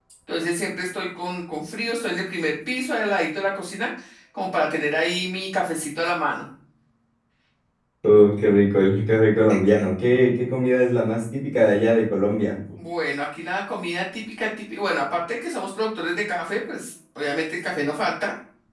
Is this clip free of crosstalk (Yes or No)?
Yes